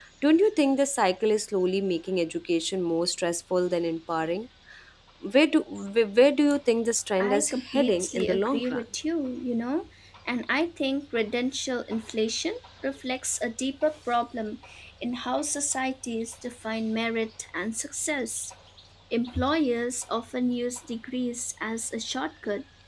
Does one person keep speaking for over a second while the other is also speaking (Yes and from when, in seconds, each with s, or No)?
Yes, from 7.2 s